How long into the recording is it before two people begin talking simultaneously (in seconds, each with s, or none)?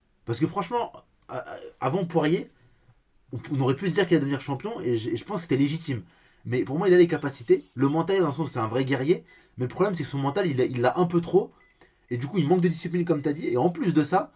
none